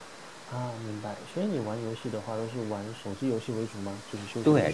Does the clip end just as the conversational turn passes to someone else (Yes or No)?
Yes